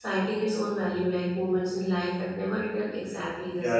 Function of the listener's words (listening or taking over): taking over